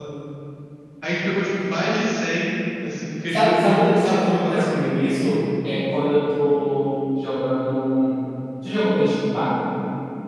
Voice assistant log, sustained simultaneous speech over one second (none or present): present